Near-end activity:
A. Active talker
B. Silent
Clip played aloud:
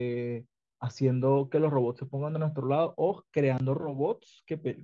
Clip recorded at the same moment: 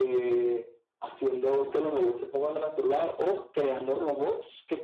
B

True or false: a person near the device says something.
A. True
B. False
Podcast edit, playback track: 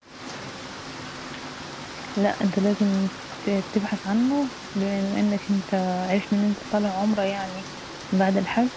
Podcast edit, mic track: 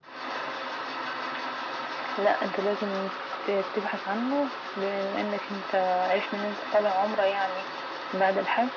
B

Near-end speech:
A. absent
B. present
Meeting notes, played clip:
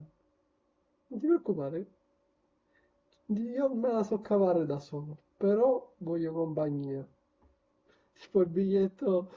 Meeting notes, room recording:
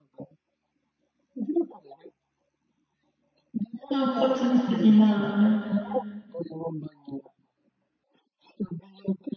B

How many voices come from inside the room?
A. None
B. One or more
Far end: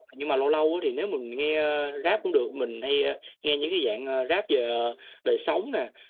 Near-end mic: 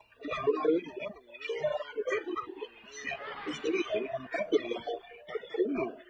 A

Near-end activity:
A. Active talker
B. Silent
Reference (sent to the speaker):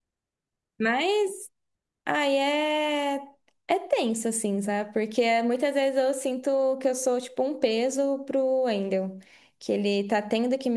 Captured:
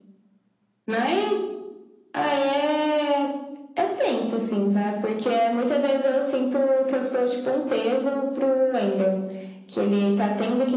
B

